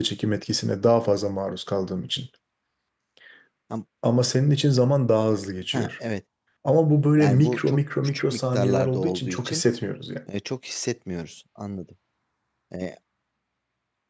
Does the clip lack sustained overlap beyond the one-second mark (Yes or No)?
No